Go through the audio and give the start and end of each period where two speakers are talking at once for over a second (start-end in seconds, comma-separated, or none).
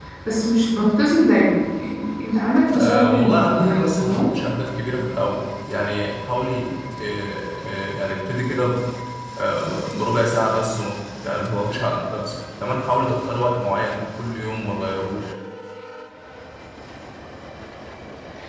2.7-4.4